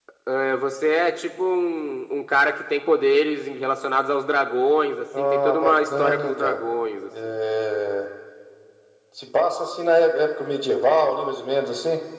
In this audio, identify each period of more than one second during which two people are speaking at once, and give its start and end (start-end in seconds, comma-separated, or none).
5.2-6.6